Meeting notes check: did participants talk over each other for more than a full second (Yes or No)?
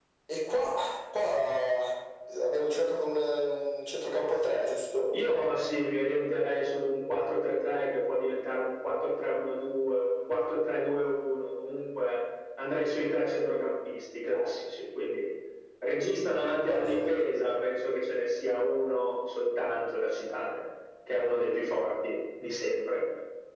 No